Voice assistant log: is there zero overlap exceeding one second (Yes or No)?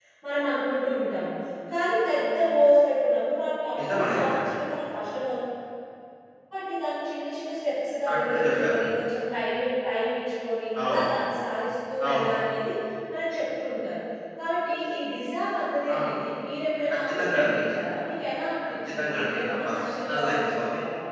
No